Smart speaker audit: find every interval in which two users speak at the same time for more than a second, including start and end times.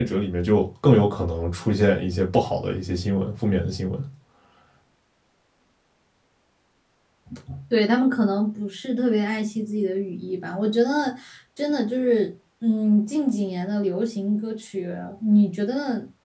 none

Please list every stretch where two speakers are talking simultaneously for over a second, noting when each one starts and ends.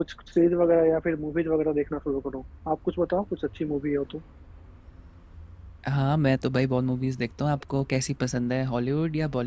none

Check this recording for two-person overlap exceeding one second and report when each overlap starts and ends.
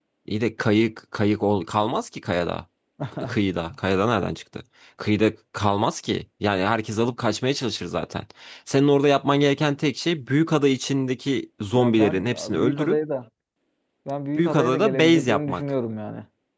11.7-13.0, 14.4-15.6

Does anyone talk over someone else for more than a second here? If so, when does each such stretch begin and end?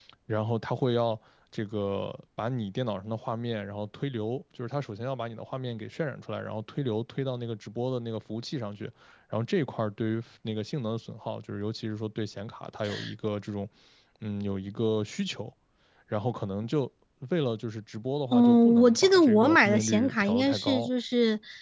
18.3-20.9

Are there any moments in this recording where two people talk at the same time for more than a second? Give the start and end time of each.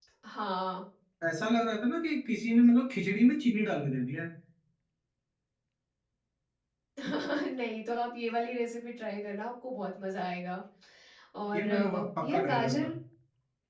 11.6-12.9

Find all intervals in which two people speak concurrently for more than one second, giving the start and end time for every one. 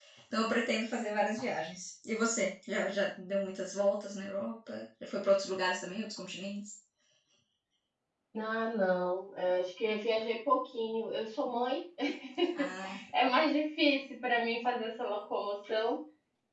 none

